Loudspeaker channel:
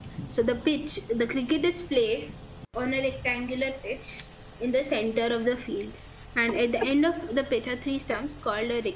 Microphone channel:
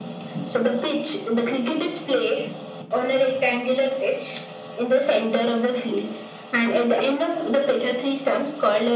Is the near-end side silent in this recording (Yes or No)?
Yes